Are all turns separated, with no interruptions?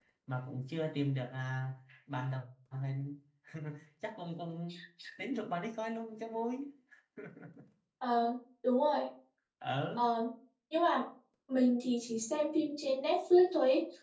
Yes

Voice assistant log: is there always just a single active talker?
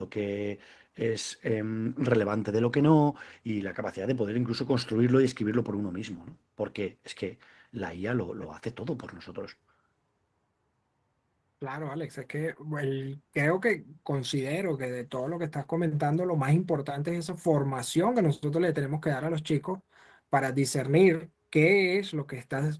Yes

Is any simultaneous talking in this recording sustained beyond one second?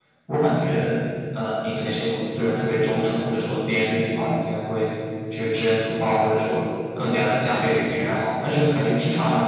No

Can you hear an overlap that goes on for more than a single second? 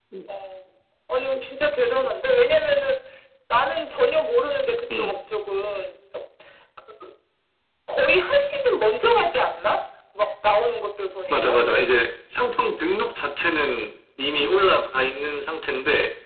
No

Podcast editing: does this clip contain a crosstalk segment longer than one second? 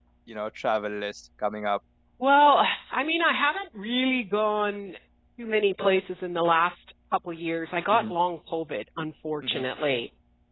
No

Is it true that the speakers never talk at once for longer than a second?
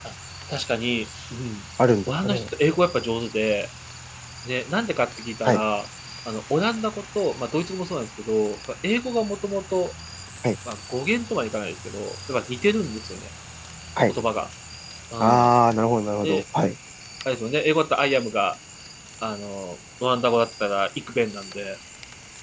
Yes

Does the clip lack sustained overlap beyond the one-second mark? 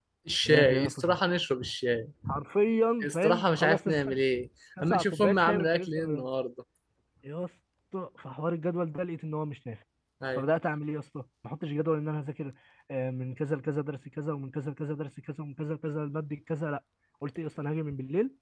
No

